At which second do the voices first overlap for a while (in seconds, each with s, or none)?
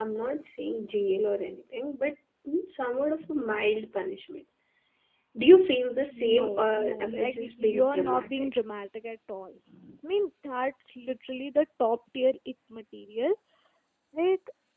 6.1 s